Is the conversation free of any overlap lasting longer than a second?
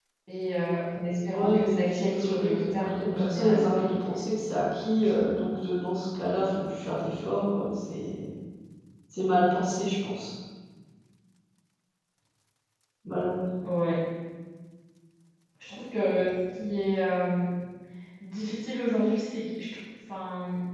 No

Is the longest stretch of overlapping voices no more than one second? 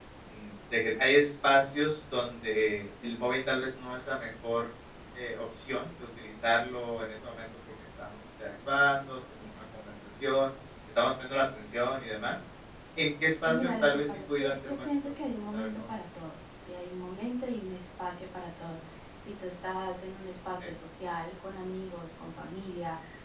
No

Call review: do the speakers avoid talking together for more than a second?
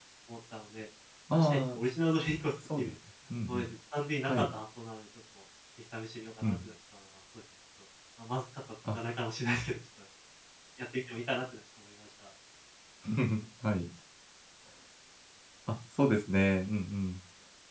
Yes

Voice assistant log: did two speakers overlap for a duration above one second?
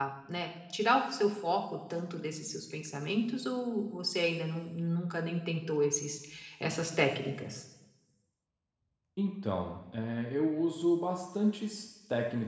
No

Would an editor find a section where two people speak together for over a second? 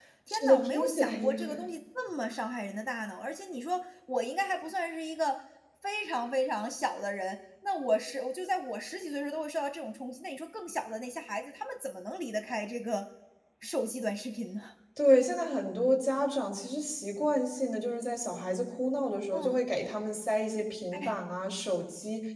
Yes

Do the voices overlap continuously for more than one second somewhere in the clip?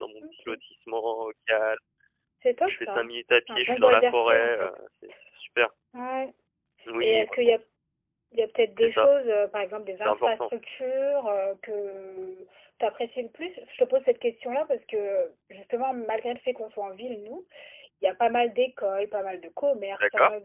Yes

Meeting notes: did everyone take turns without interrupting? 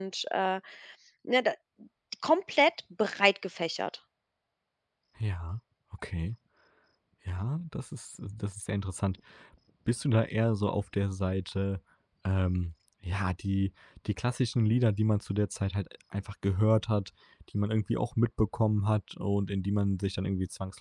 Yes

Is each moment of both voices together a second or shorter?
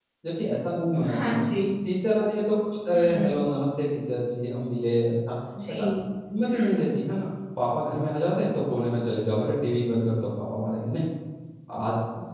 Yes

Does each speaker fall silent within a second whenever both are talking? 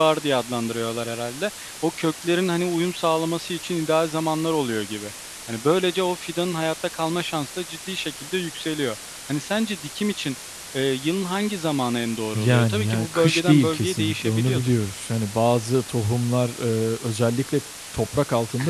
No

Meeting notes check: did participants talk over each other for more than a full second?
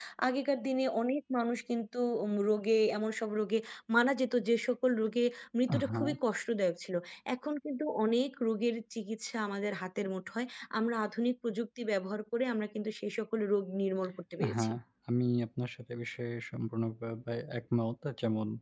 No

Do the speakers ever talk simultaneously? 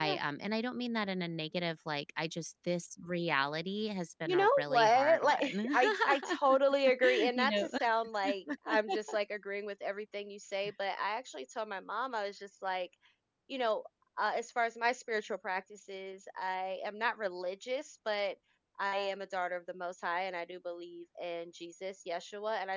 Yes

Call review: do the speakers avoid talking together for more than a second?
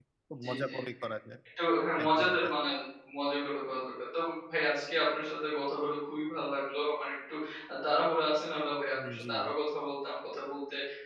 Yes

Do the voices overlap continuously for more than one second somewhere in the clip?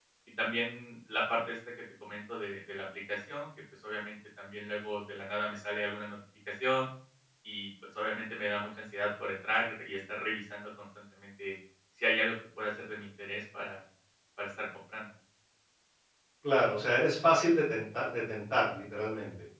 No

